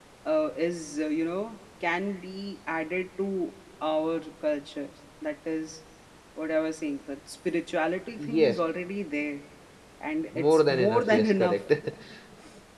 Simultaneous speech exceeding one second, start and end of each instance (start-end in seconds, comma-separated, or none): 10.3-11.6